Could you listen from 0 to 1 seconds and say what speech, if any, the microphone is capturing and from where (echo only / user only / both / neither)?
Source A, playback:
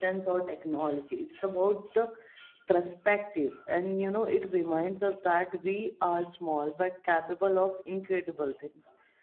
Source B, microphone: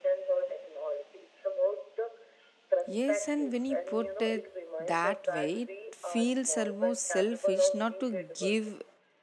echo only